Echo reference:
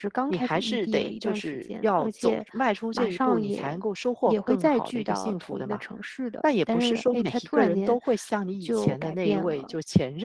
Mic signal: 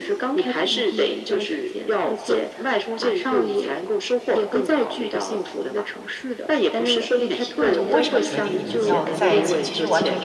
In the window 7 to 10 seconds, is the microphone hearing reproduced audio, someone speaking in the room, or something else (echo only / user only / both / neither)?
both